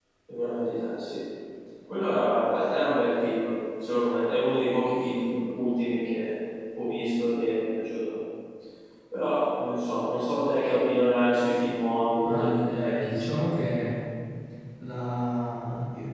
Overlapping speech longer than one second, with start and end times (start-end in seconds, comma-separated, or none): 12.2-13.6